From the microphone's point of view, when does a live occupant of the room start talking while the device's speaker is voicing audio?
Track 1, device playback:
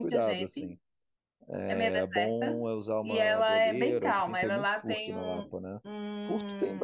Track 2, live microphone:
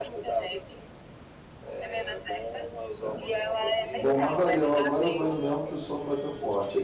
3 s

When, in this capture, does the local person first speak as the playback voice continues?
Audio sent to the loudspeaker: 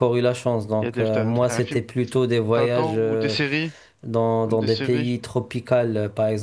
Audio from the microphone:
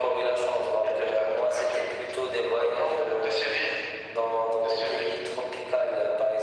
none

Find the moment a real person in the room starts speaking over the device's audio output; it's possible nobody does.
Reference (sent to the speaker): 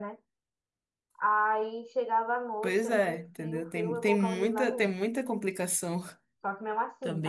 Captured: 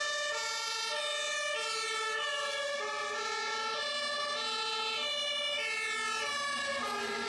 none

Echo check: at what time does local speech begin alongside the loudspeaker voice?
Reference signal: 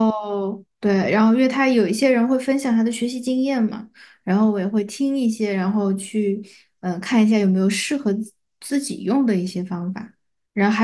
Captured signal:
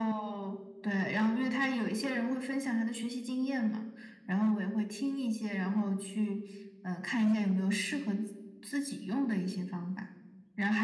none

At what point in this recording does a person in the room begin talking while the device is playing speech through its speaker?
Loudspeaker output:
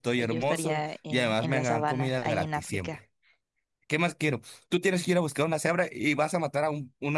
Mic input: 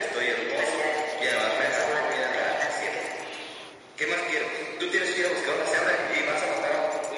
none

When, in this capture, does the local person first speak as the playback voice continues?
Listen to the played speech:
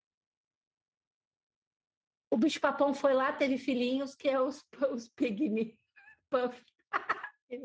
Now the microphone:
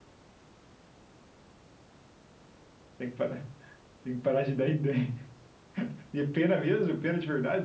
3 s

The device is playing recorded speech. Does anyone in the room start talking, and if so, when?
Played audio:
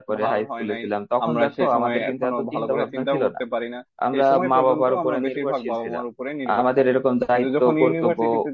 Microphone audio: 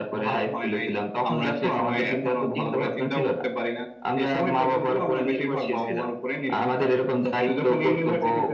none

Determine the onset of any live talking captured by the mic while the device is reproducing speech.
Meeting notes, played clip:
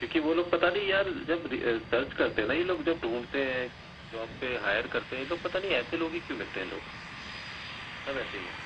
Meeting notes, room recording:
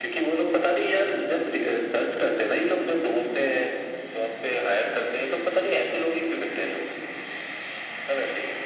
none

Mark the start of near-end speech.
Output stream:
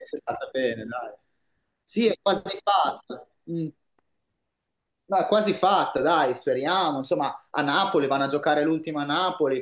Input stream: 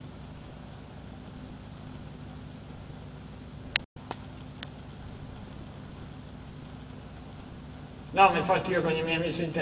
8 s

